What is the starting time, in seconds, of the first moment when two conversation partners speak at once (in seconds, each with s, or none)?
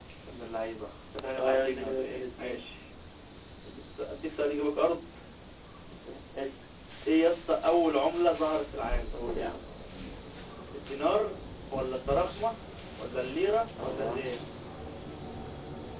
1.4 s